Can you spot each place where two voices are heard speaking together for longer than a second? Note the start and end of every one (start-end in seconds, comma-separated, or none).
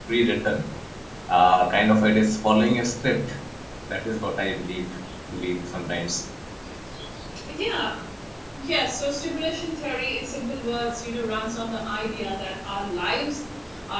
none